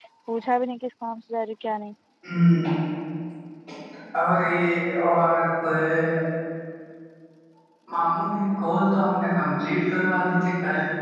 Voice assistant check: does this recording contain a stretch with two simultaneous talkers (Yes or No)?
No